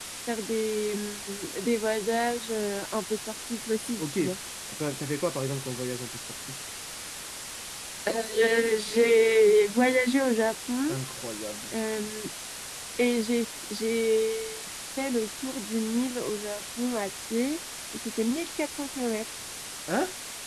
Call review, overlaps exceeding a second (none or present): none